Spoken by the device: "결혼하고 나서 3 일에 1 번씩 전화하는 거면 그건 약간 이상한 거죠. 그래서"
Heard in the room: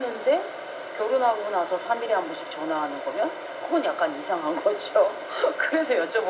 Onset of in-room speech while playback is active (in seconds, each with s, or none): none